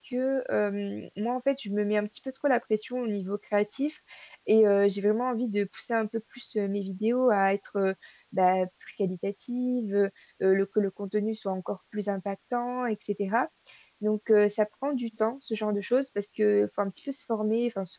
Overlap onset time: none

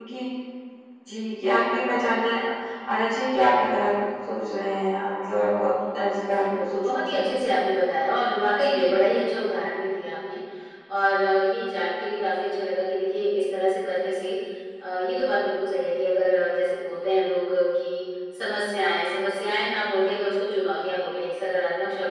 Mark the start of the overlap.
6.2 s

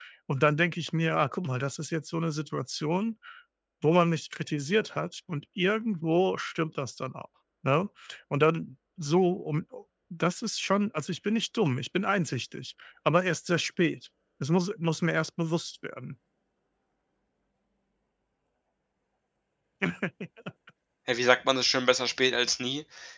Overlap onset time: none

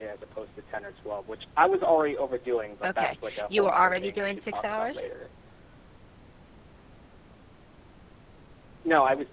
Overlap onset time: 2.8 s

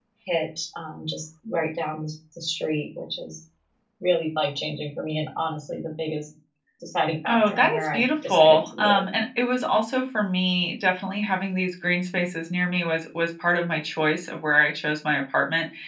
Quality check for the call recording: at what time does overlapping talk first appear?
7.3 s

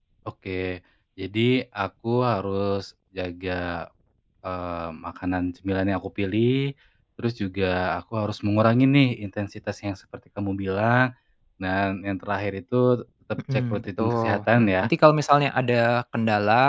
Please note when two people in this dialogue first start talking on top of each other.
13.5 s

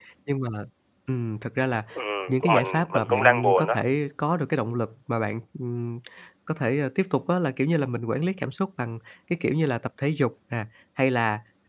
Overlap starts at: 2.3 s

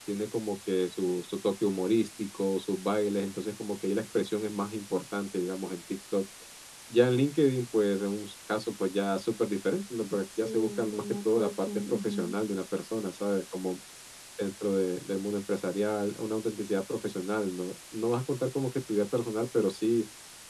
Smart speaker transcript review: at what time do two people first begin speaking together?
10.4 s

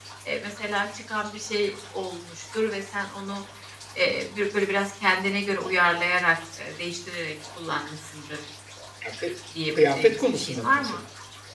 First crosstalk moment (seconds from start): 9.8 s

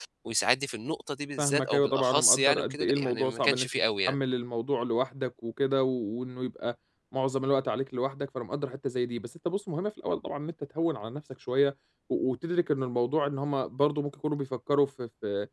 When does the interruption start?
1.4 s

